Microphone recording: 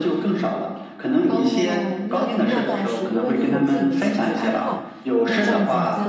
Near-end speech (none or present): present